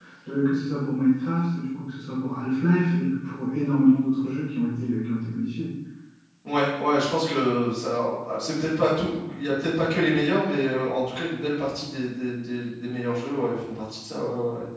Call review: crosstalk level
none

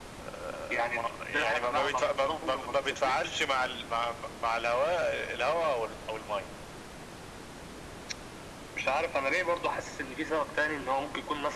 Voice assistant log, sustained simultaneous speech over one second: present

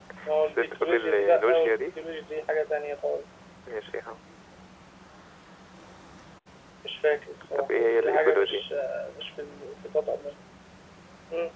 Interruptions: present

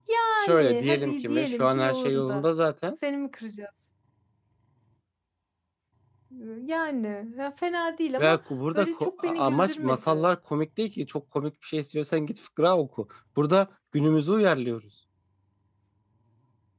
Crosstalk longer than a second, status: present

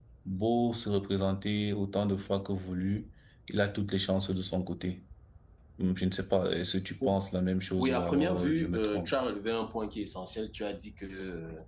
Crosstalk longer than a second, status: present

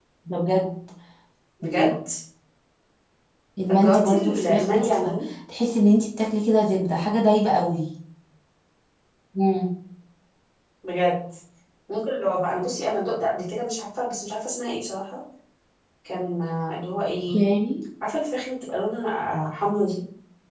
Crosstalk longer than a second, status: present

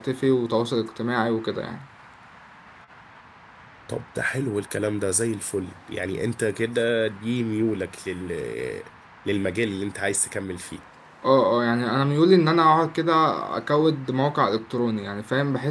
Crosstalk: none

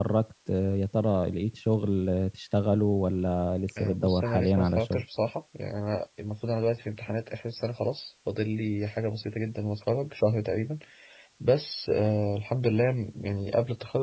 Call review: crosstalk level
present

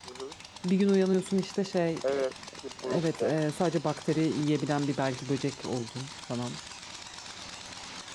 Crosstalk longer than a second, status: none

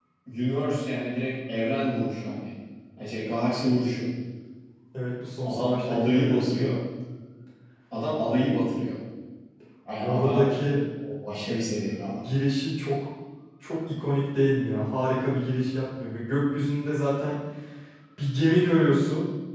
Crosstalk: present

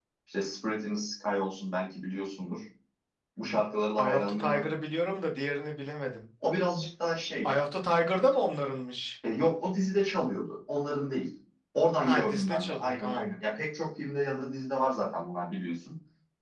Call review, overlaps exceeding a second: present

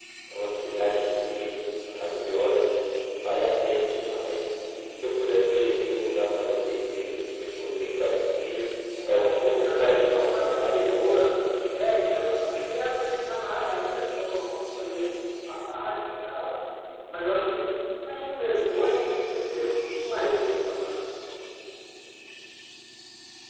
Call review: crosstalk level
present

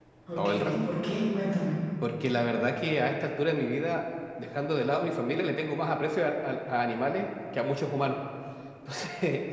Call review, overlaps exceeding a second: none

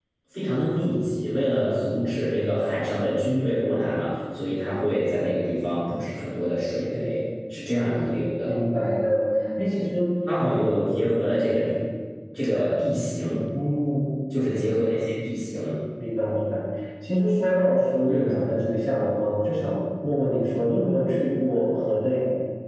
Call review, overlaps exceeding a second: none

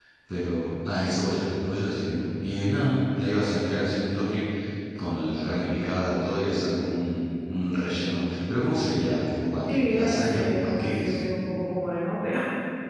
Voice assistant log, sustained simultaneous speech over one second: present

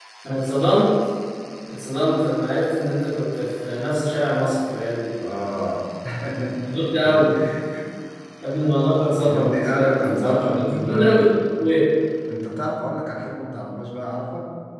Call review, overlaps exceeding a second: present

